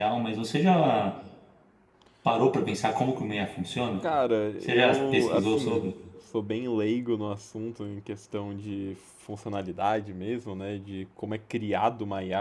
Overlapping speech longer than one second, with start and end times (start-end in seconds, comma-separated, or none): 4.6-5.9